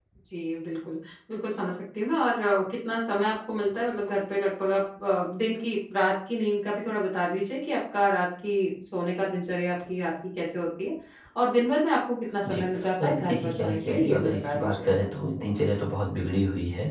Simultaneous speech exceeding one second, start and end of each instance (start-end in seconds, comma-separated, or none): 13.0-14.9